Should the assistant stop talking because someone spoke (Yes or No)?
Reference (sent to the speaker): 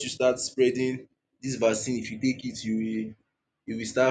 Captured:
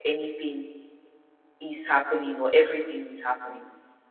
Yes